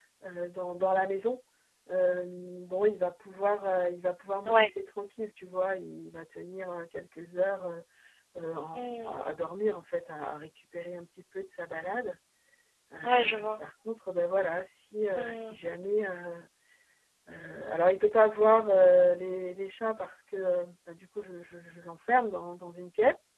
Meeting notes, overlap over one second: none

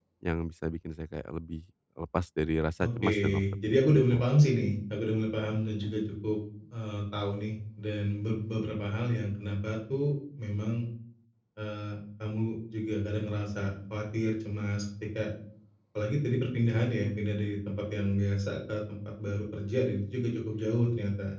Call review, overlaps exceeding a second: present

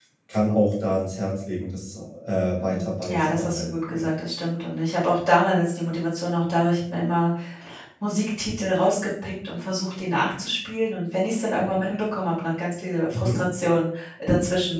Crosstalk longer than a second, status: present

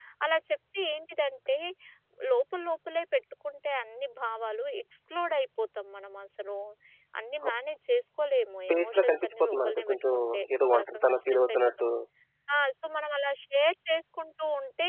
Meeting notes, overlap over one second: present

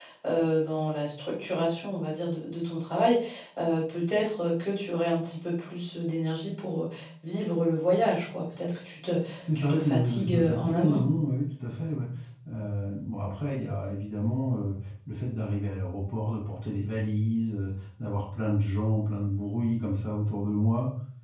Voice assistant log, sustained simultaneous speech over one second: present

